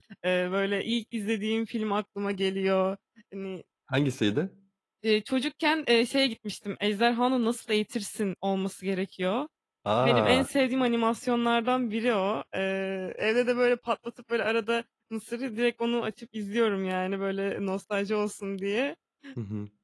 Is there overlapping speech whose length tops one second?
No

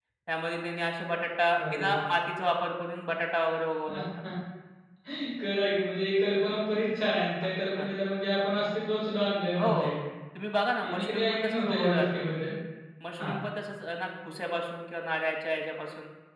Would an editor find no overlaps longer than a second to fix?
No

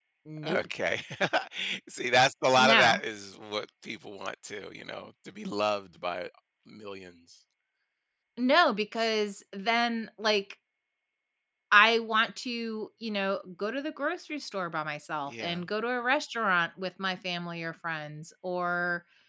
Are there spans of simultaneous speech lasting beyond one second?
No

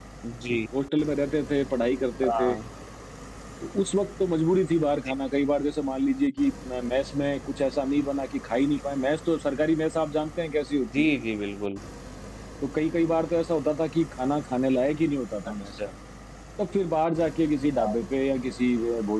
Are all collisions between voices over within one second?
Yes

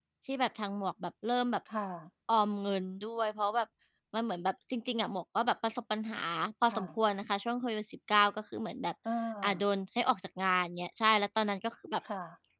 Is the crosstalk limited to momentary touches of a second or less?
Yes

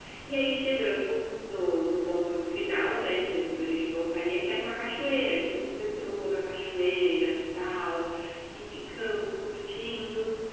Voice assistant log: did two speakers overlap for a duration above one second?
No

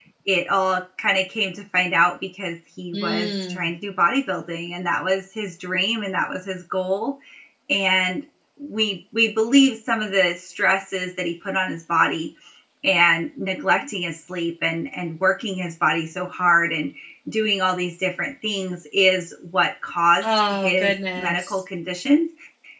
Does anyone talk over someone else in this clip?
Yes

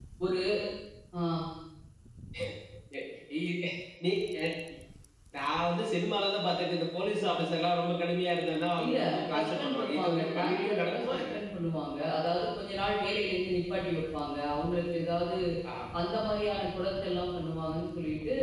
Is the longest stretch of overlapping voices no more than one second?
No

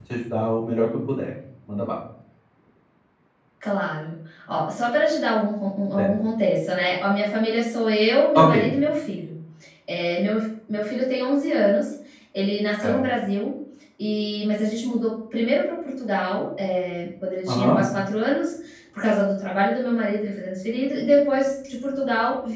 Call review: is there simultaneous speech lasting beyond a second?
No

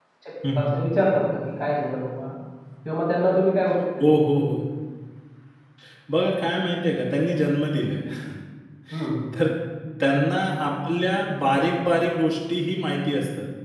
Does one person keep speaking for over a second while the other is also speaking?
No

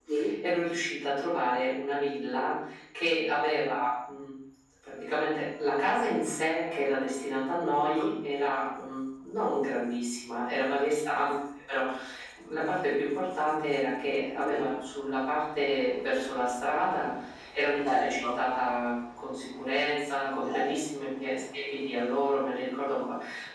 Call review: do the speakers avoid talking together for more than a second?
Yes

